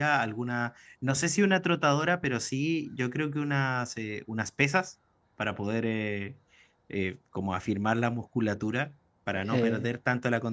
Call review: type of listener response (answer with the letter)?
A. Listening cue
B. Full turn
A